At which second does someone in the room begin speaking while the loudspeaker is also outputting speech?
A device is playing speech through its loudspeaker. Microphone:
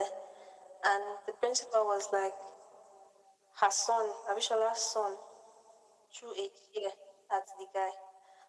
none

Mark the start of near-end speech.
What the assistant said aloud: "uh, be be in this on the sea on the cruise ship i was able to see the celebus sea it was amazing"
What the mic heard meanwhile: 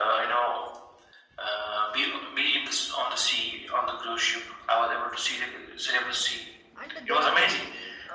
7 s

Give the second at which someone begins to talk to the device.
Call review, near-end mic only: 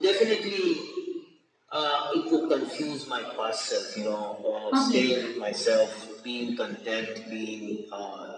5 s

